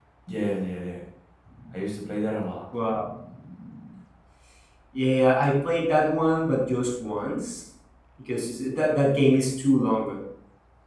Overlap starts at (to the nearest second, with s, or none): none